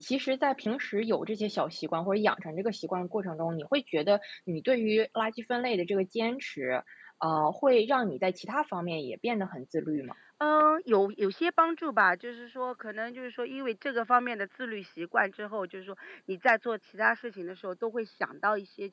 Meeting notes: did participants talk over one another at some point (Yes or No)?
No